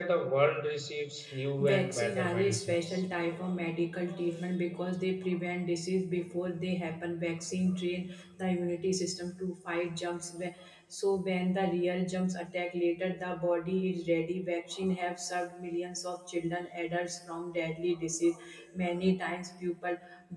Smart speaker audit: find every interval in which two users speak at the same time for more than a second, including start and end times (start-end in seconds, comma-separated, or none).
1.6-3.0